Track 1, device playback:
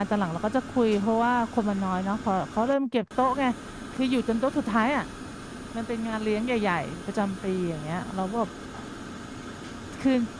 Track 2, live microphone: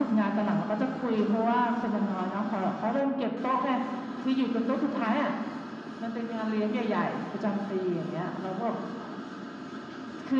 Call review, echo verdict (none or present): present